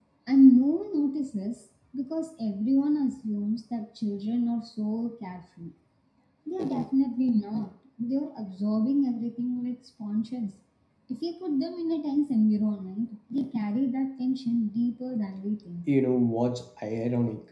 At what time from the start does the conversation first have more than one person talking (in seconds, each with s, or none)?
none